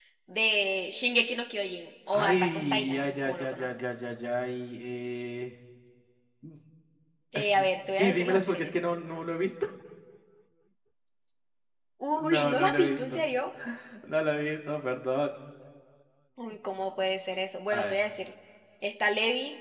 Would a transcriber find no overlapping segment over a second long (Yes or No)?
No